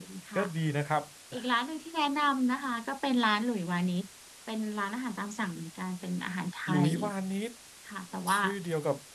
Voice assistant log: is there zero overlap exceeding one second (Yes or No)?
Yes